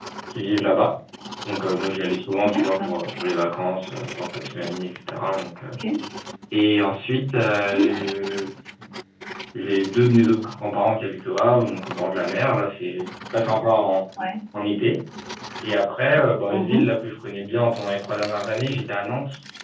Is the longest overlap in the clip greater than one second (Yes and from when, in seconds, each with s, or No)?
No